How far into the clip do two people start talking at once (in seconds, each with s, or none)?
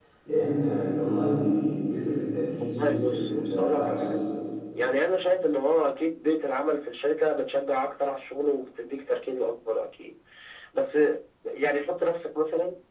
2.6 s